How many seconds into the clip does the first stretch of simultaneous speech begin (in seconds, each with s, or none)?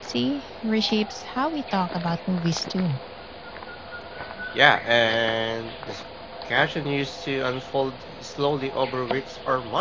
none